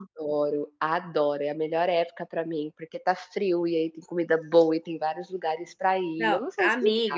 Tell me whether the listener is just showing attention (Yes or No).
No